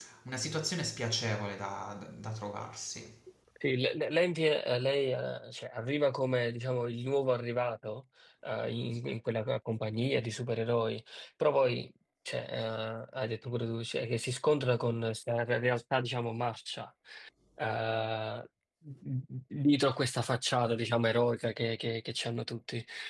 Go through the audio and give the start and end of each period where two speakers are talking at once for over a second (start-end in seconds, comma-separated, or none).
none